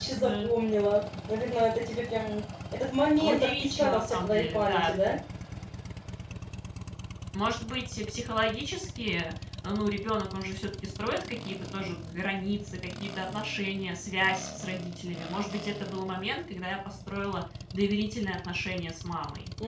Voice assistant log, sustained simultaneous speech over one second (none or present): present